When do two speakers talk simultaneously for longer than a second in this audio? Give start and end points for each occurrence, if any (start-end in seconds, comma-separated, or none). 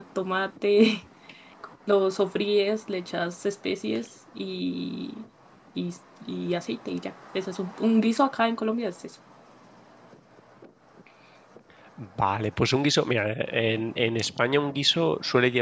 none